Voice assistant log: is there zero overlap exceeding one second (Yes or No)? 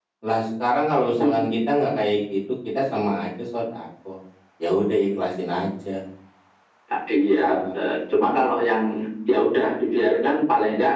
Yes